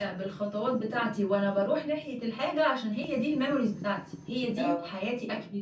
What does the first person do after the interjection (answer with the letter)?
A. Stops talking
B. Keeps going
B